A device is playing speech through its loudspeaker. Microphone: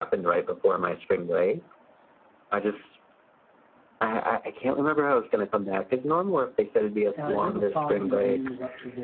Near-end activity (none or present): present